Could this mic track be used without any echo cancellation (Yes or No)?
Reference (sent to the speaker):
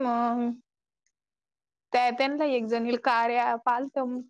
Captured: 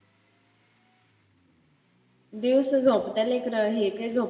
Yes